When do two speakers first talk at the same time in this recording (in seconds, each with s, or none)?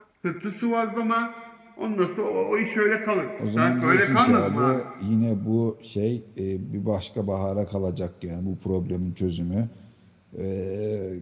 3.4 s